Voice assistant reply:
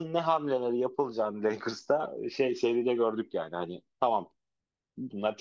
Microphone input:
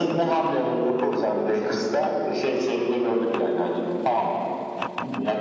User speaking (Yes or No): No